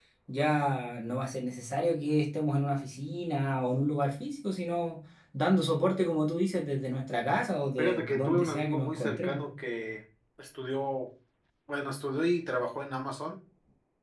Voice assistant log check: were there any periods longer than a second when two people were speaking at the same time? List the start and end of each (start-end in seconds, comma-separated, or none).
7.8-9.4